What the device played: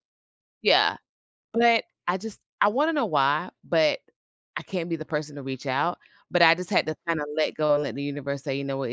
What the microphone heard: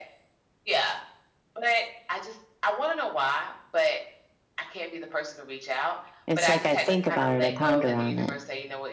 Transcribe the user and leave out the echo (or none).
It's like I think about it. I ponder on it.